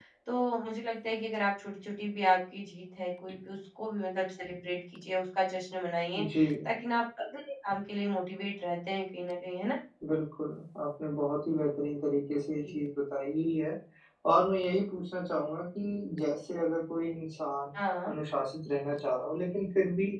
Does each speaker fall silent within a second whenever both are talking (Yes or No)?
Yes